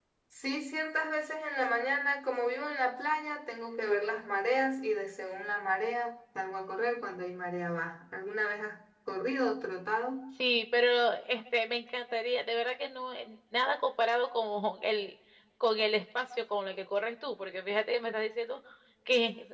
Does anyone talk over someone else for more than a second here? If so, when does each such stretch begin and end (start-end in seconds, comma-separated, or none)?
none